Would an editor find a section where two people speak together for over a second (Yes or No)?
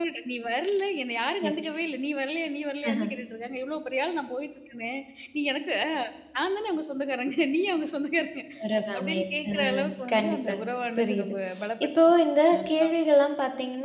Yes